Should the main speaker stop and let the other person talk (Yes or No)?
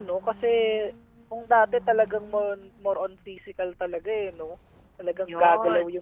No